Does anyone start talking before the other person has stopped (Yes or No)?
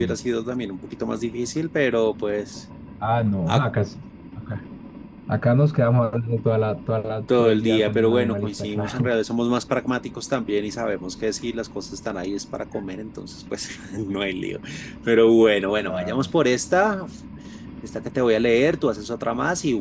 Yes